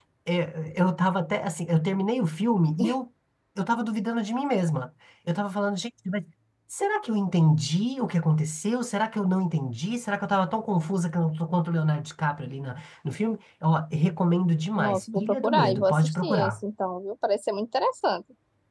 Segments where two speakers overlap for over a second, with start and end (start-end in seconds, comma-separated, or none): 14.8-16.6